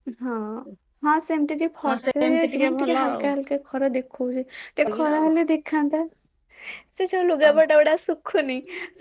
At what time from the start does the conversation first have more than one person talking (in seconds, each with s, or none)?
1.9 s